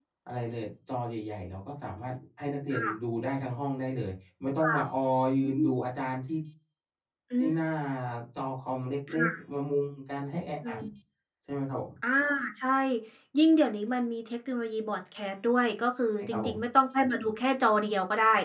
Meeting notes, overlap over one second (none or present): none